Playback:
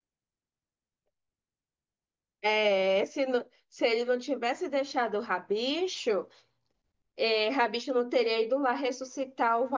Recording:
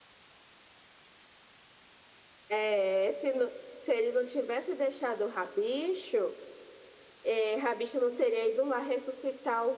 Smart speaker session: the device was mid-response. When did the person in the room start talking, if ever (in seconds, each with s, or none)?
none